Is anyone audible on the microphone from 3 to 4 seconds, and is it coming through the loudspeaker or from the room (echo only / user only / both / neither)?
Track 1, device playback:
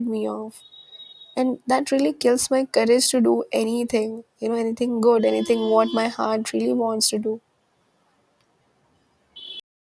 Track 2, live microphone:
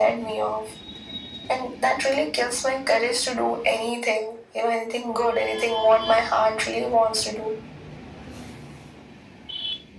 echo only